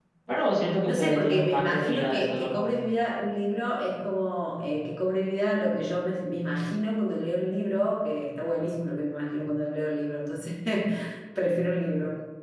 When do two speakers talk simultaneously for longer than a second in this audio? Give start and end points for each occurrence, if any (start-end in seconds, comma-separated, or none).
0.9-2.7